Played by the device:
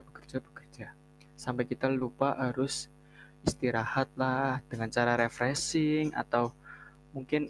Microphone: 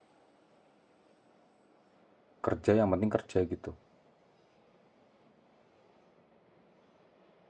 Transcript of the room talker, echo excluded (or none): kerja yang penting kerja gitu.